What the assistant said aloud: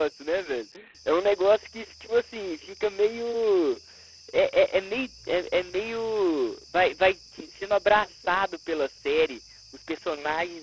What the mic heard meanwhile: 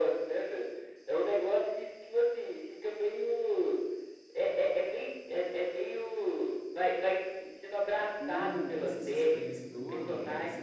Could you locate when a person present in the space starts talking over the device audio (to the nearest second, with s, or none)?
8 s